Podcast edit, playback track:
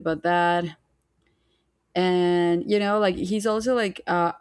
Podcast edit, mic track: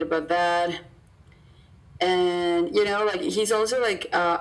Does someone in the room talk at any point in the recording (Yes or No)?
No